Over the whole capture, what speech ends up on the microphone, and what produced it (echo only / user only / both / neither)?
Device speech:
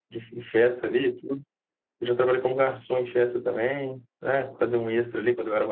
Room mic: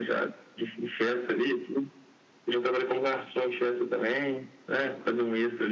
echo only